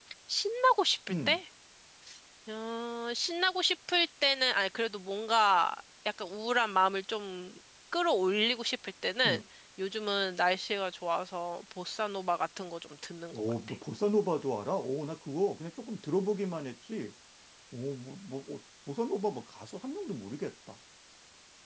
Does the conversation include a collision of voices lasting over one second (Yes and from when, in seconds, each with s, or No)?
No